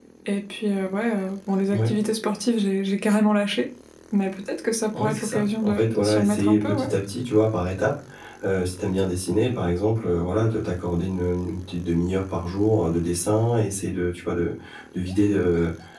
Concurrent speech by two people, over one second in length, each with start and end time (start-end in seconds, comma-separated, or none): 5.0-6.9